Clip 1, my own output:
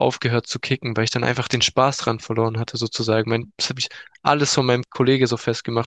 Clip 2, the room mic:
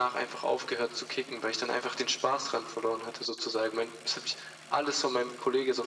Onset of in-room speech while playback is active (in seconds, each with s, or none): none